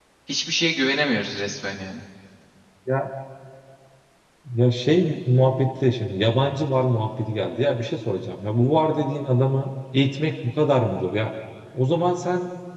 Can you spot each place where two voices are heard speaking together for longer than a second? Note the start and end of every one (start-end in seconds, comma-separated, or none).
none